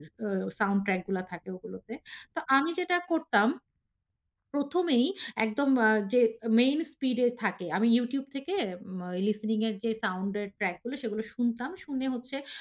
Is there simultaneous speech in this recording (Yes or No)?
No